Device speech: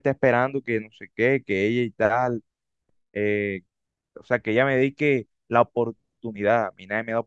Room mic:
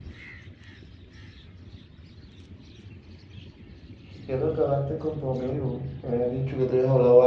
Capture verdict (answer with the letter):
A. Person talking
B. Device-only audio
A